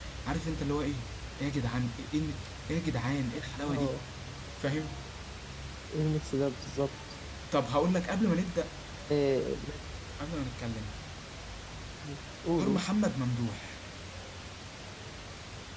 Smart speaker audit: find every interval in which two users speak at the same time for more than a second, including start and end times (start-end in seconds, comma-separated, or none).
none